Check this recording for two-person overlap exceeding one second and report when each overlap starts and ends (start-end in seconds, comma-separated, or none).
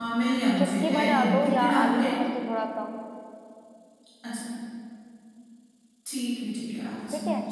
0.6-2.1